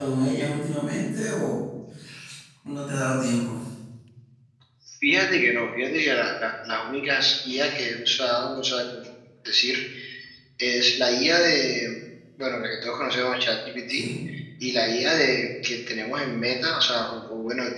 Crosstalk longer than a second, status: none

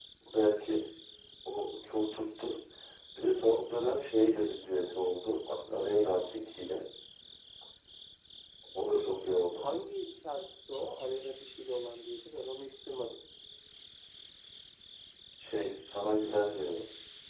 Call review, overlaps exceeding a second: none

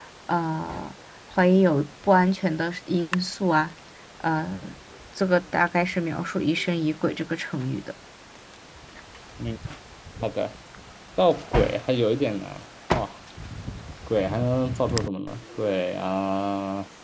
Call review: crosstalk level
none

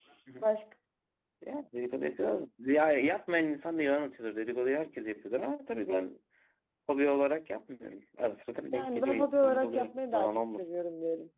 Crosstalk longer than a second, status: present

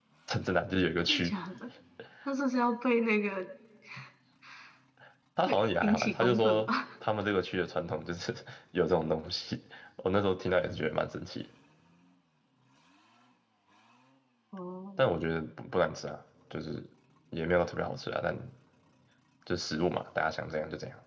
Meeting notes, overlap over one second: present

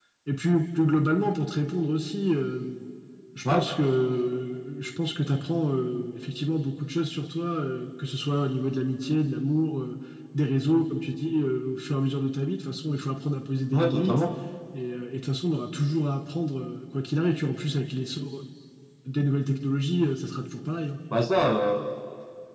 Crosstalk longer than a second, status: none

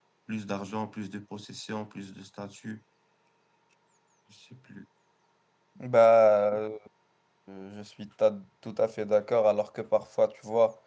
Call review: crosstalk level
none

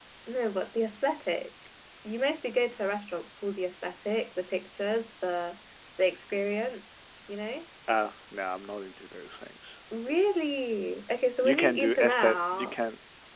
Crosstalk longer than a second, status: present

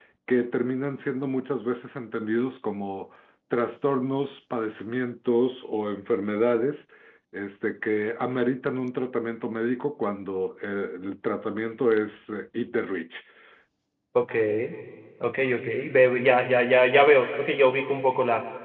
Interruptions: none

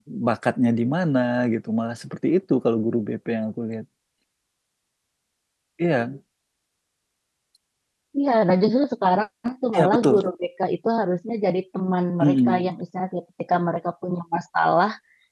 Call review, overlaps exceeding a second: none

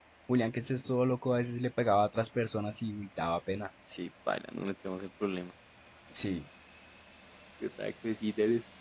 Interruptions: none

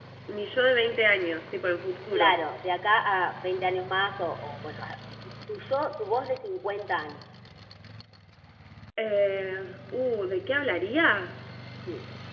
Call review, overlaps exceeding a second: none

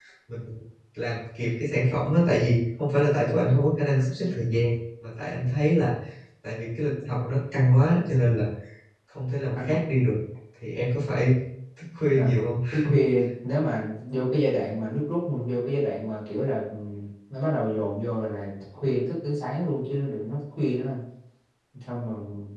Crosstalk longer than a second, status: none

